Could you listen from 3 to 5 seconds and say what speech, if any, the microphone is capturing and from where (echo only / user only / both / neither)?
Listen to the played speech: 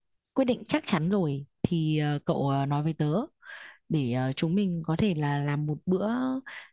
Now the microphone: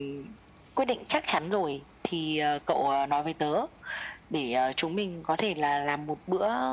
echo only